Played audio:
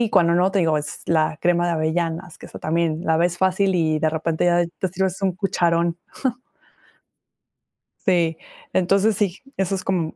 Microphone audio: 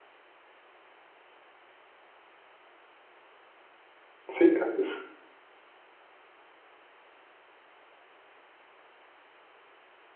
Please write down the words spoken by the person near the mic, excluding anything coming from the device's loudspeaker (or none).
Sí, así es.